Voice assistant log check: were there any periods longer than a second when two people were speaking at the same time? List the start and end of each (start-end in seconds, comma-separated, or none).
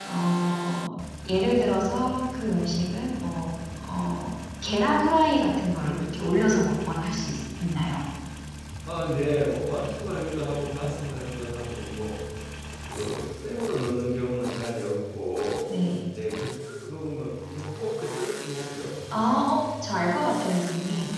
none